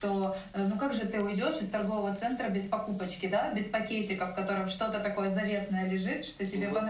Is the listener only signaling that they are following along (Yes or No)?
Yes